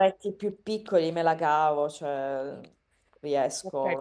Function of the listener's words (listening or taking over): taking over